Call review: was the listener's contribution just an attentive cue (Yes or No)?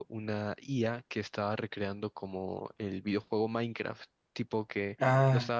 Yes